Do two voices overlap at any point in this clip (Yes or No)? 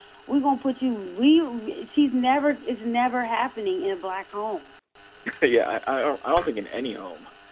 No